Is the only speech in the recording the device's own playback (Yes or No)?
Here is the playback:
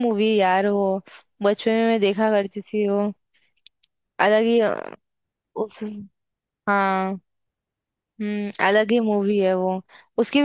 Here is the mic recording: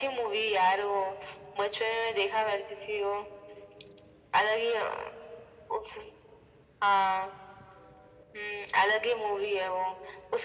Yes